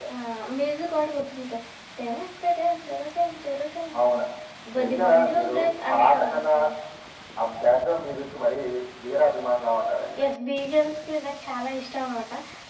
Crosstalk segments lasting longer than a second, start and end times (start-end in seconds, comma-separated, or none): 4.8-6.5